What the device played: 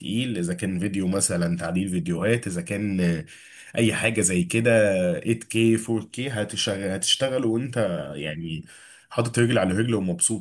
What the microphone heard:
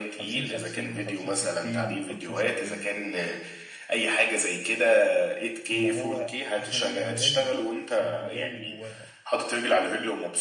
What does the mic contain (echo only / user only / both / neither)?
both